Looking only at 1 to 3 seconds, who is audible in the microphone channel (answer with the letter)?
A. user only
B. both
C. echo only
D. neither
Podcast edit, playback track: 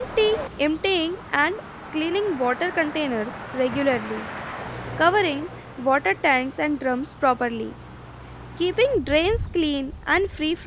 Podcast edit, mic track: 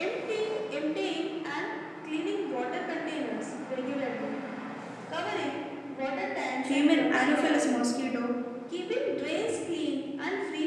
C